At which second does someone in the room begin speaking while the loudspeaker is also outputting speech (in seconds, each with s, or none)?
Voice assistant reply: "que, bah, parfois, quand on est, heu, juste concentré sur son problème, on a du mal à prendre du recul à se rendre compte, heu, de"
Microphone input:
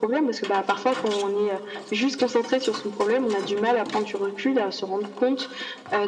none